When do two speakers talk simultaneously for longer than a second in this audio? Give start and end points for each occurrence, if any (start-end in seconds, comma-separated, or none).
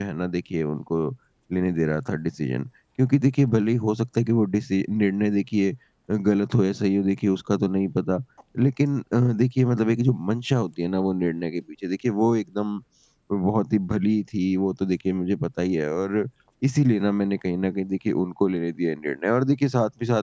none